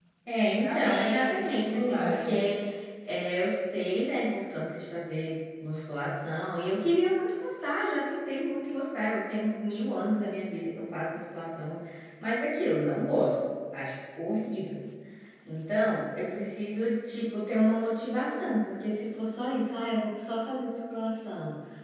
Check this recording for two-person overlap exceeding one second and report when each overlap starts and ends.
0.6-2.5

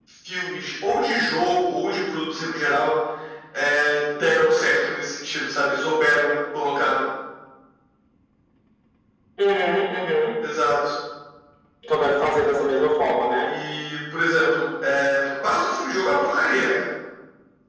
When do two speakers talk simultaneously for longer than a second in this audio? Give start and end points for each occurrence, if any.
none

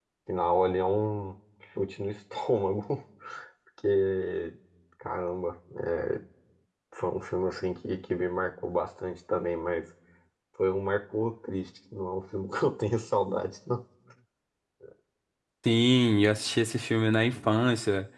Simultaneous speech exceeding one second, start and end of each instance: none

